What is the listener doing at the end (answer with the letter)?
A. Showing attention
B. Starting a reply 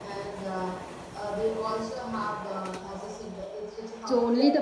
B